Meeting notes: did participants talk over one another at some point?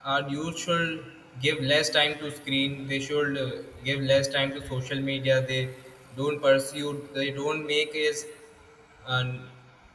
No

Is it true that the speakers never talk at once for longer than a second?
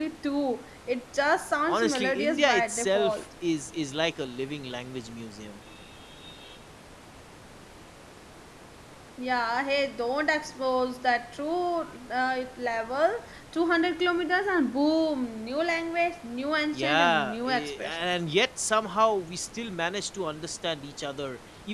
No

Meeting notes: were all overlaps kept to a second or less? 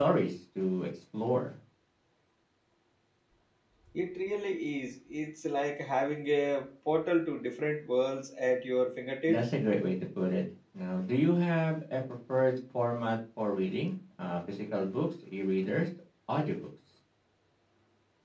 Yes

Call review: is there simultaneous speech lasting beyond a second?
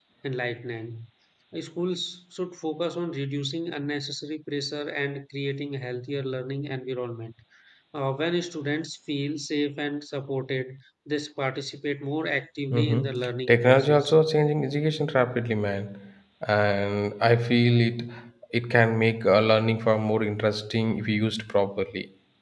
Yes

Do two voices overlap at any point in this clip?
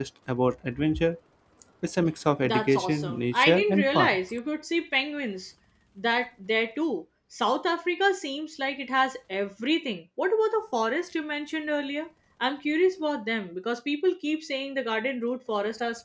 Yes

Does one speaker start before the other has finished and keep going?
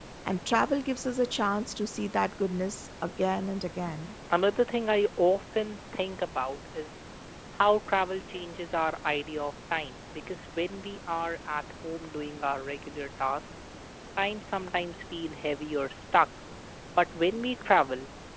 No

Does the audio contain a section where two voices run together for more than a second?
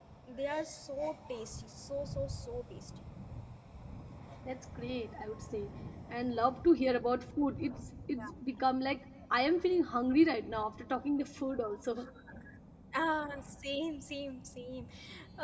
No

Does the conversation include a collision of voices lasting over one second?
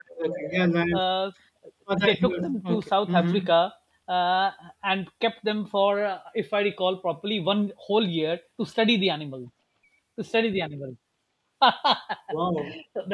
Yes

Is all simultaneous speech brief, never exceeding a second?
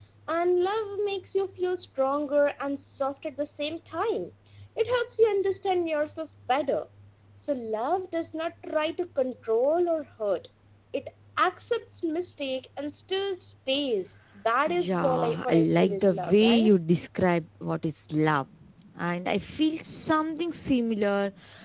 No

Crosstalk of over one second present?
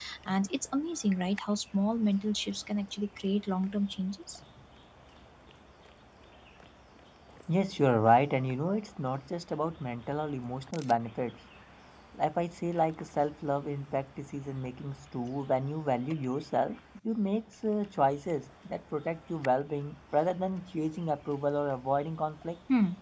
No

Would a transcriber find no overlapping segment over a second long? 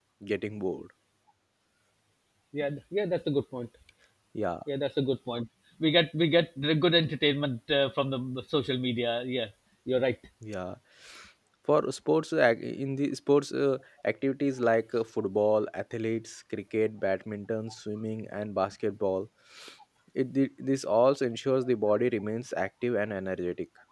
Yes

